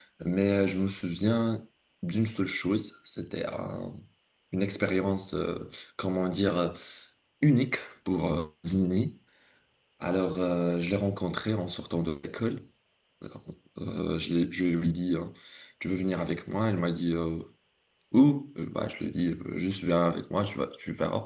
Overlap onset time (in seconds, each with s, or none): none